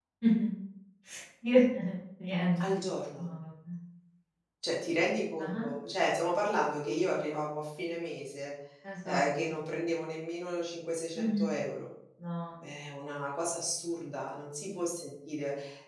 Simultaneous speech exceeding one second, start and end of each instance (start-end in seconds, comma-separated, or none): none